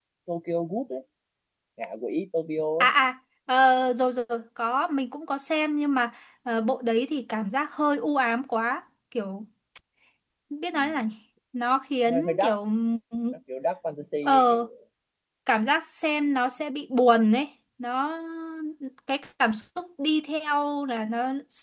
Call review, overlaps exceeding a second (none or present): none